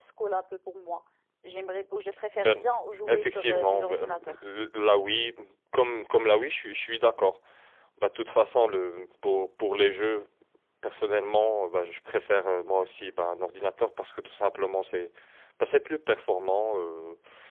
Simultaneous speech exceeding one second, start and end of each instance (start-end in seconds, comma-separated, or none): 3.1-4.3